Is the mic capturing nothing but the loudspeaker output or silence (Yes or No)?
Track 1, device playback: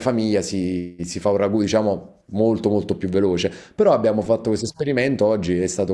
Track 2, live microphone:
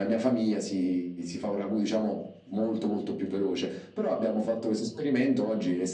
Yes